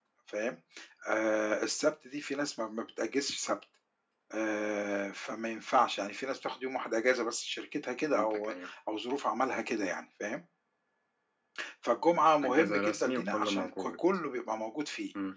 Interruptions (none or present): present